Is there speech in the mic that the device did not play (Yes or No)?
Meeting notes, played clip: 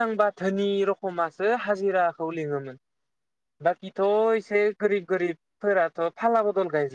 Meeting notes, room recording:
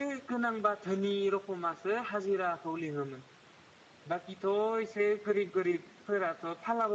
No